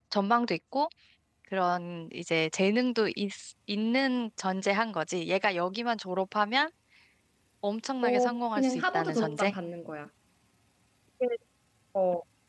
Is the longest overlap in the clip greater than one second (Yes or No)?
Yes